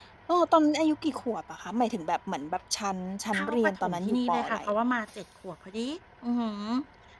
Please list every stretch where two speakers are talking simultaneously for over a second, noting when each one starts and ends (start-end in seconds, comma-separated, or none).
3.4-4.6